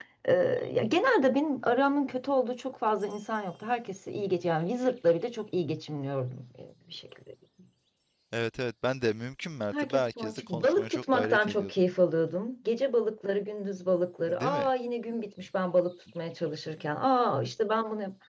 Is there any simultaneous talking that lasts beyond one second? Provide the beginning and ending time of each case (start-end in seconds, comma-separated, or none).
9.7-11.7